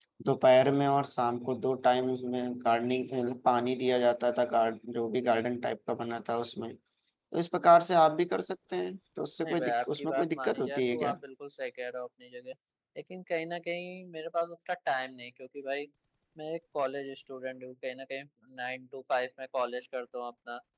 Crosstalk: present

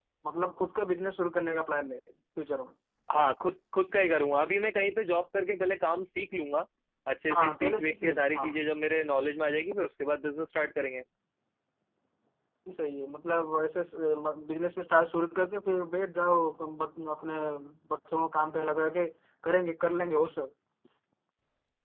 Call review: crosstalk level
present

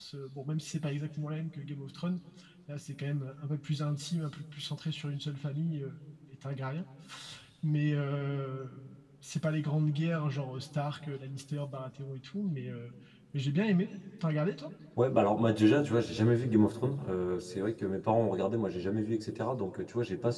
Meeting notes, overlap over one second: none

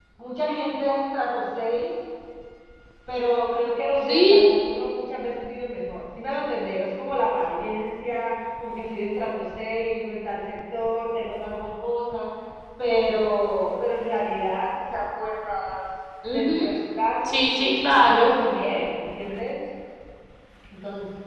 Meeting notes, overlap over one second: none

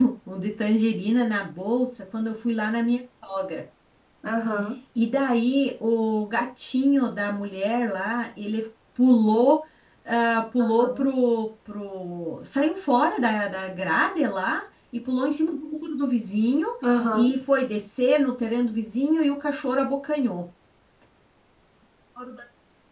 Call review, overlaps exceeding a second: none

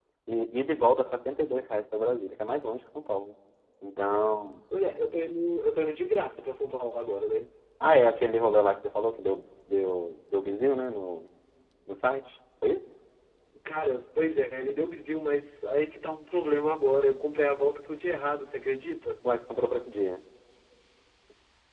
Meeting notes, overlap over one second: none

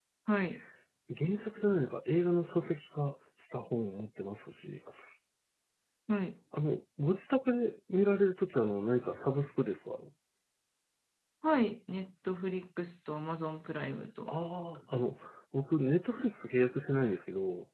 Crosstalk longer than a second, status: none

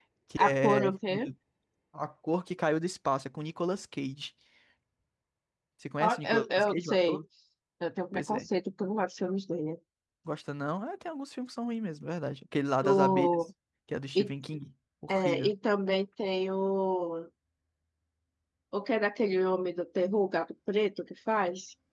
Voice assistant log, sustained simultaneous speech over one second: present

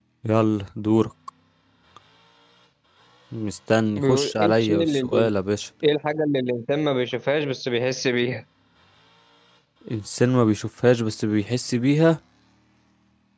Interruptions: present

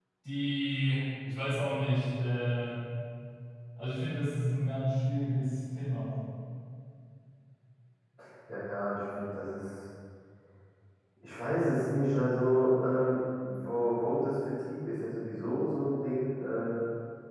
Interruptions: none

